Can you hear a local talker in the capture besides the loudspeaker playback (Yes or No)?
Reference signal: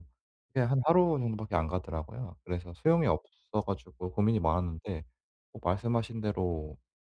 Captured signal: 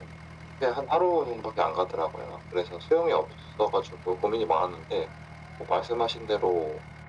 No